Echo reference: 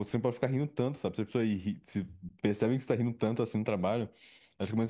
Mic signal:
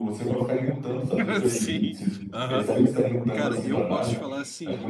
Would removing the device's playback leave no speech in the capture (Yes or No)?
No